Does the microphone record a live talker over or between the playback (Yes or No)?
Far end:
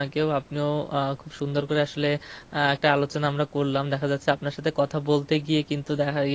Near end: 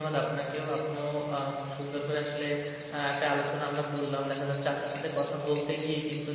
No